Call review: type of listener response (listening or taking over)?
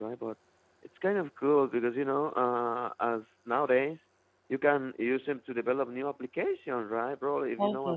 listening